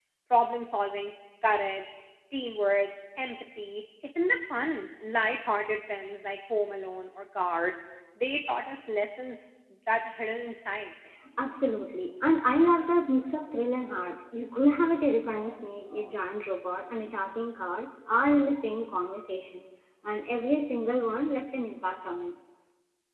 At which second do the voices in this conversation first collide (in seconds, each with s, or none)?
none